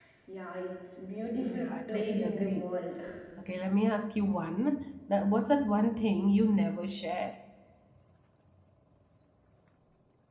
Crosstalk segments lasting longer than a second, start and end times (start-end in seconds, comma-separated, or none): 1.4-2.7